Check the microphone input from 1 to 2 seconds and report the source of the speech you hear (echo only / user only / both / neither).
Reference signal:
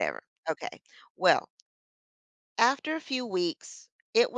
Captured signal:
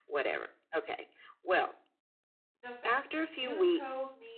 echo only